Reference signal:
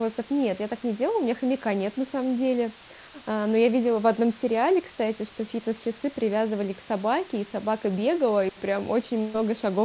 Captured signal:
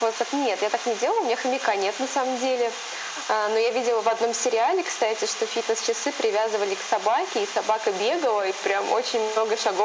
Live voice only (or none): none